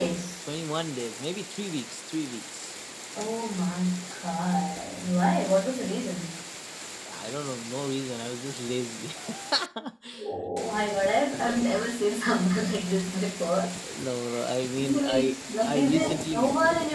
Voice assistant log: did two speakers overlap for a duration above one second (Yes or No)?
Yes